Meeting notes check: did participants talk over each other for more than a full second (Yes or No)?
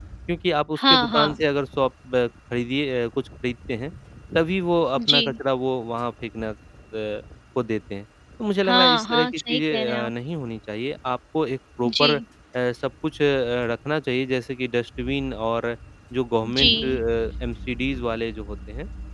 Yes